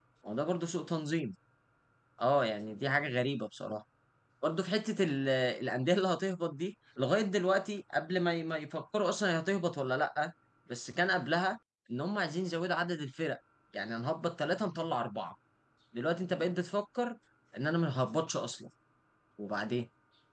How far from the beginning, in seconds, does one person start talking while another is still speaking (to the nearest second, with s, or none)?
none